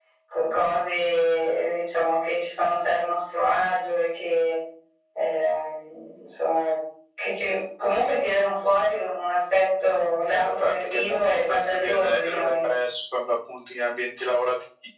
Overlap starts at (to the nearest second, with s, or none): 10 s